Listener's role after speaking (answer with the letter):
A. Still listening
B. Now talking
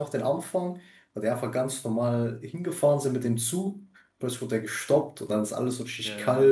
A